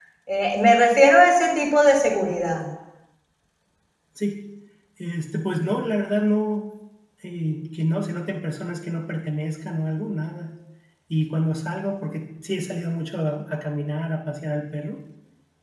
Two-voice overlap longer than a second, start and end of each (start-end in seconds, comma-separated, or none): none